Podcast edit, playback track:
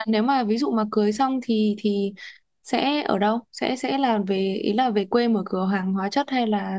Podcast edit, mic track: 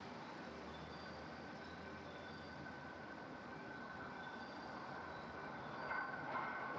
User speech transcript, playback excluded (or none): none